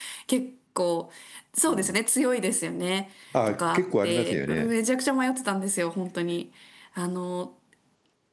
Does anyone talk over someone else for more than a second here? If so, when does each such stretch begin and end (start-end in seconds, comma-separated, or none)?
3.5-4.7